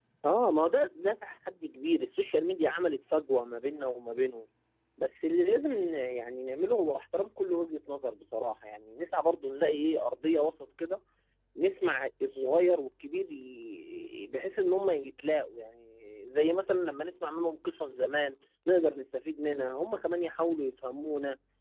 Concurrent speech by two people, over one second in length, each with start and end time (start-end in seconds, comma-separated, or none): none